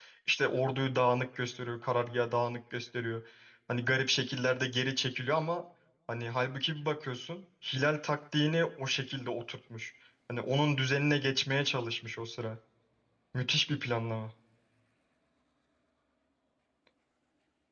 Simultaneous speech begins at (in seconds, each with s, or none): none